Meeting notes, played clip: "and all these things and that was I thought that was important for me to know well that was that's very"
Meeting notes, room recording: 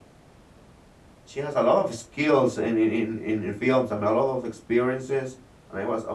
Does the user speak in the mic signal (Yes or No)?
Yes